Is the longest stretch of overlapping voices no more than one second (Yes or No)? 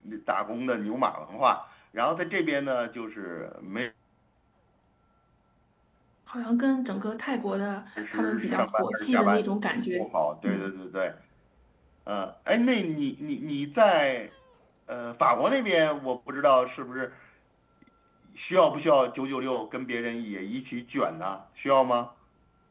No